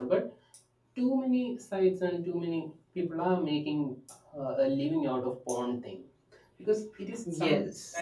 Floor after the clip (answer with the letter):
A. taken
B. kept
B